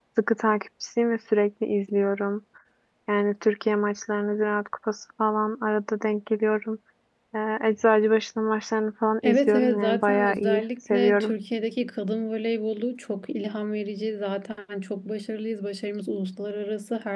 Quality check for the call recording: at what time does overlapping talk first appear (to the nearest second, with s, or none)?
9 s